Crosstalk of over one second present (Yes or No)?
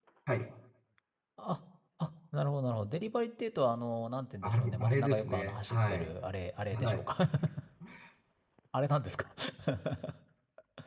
Yes